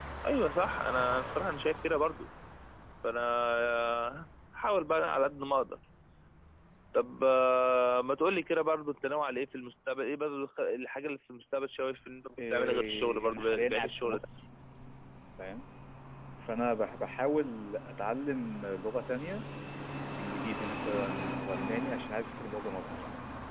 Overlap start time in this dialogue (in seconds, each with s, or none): 12.4 s